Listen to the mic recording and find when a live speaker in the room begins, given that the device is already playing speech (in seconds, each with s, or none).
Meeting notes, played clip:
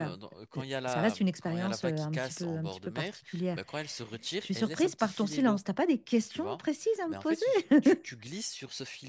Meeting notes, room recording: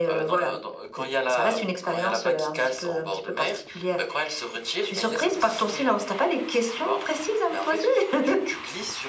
none